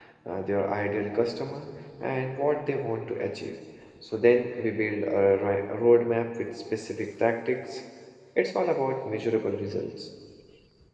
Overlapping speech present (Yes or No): No